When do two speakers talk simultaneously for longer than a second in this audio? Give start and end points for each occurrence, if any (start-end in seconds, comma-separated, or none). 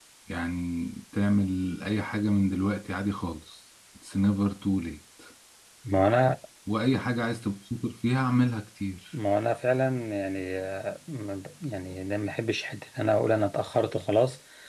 none